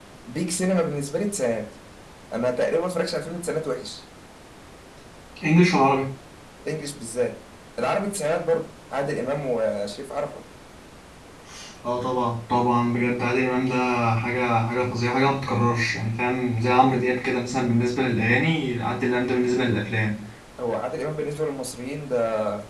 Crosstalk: none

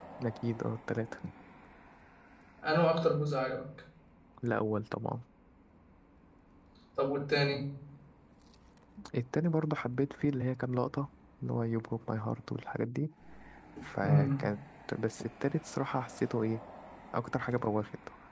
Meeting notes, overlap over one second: none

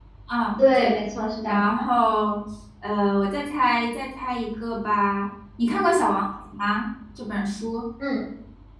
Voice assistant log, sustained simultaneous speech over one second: none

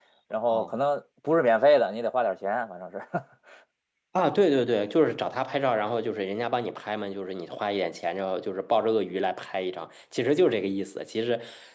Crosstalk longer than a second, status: none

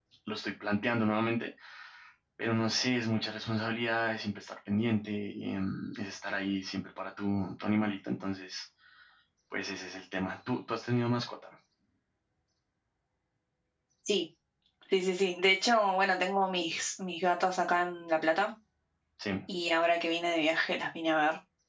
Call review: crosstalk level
none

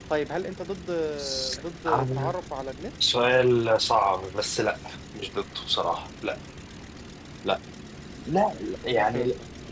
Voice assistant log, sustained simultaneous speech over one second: none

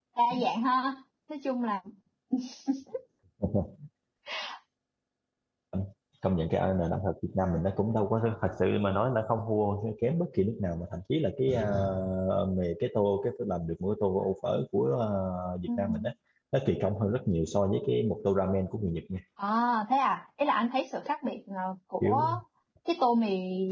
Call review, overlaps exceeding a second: none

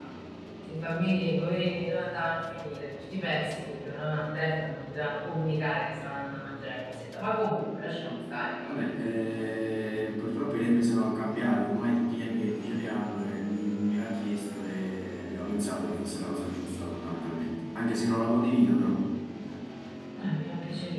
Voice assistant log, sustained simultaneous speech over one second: none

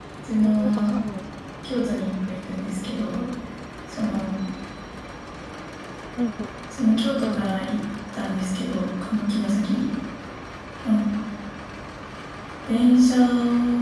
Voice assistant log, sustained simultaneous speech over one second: none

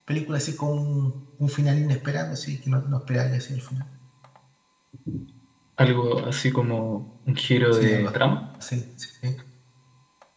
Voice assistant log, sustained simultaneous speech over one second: none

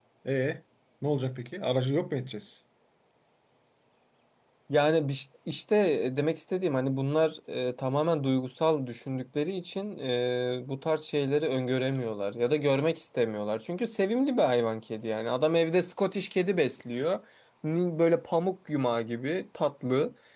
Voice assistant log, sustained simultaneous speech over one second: none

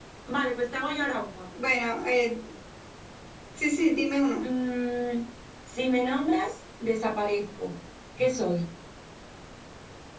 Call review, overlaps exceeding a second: none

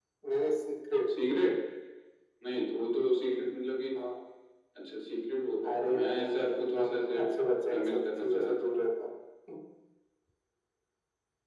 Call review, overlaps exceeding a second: present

